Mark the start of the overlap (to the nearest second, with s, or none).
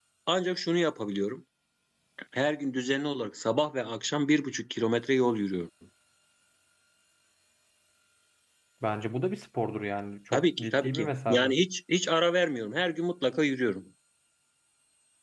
10 s